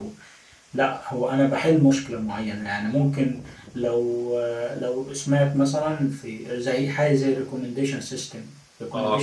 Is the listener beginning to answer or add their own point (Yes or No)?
No